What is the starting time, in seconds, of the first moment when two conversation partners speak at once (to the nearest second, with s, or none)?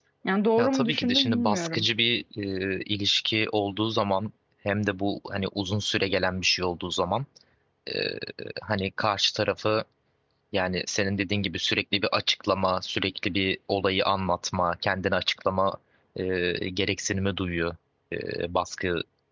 1 s